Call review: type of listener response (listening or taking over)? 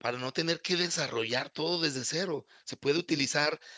listening